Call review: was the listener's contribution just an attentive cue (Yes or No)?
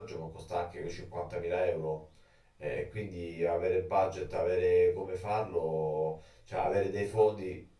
Yes